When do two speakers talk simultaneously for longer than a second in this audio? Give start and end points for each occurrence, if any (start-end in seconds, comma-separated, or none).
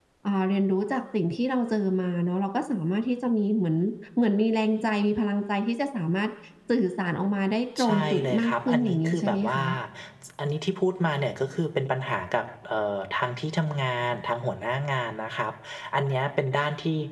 7.8-9.6